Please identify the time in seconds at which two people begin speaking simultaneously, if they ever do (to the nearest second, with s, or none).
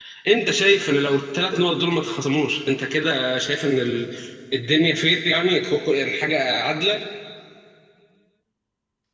none